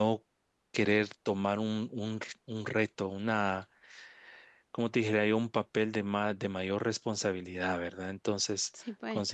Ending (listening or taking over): listening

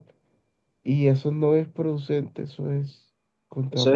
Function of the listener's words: taking over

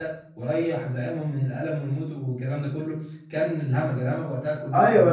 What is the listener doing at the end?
taking over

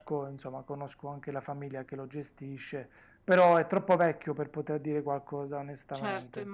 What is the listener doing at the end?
taking over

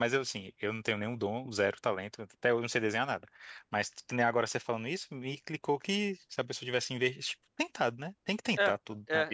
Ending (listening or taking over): taking over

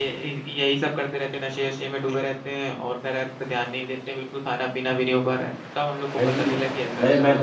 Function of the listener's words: taking over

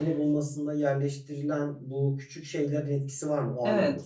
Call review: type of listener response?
taking over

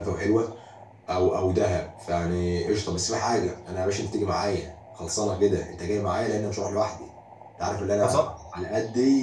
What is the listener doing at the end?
listening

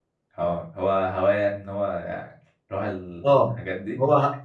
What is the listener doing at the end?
taking over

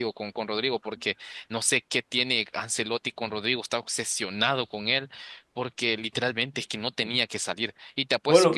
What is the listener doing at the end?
listening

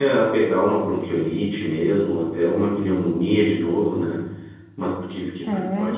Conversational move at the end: listening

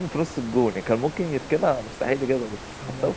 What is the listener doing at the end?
taking over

